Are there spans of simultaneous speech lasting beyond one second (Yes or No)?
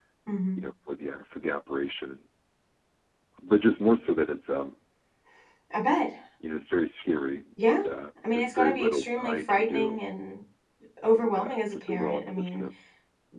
Yes